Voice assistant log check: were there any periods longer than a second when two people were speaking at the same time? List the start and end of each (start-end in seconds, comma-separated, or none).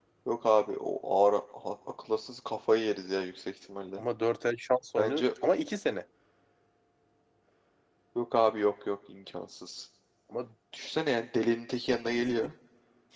none